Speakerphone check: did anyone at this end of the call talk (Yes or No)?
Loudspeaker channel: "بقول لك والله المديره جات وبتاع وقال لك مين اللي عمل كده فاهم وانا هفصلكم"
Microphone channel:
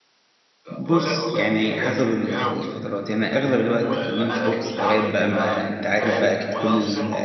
Yes